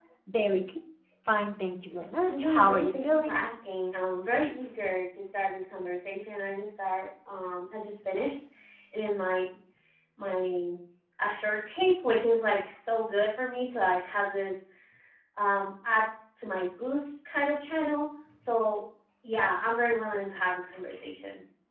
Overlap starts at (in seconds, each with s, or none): 2.2 s